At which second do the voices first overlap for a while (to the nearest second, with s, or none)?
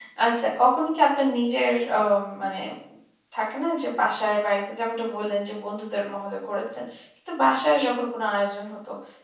none